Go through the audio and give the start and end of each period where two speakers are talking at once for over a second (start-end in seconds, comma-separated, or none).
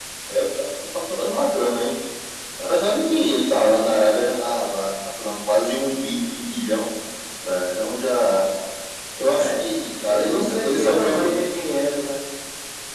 10.1-11.3